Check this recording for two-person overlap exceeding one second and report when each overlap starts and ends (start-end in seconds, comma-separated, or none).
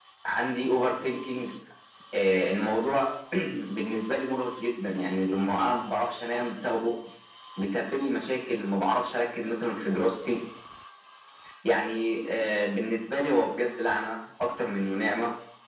none